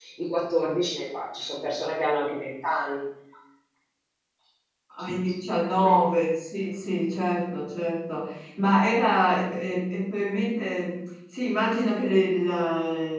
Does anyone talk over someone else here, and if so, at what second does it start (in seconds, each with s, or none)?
none